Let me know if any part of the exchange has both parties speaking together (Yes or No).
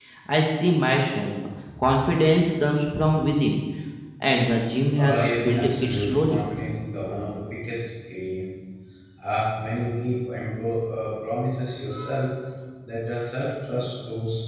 Yes